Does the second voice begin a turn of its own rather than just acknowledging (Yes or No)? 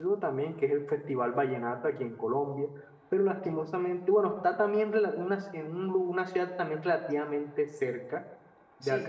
No